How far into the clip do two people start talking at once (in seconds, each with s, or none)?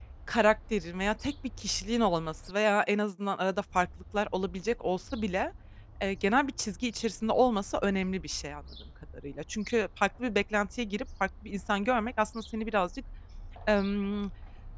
none